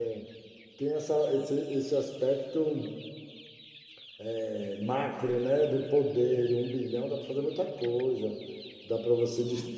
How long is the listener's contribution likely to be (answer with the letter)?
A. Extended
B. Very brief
B